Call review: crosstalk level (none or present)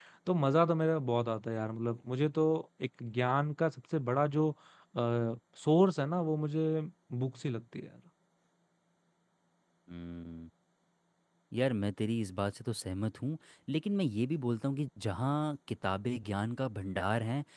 none